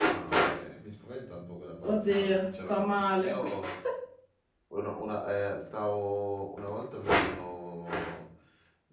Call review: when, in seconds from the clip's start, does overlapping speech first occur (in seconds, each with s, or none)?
1.8 s